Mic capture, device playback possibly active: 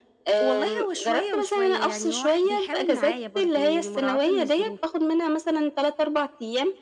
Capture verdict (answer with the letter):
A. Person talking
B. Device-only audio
A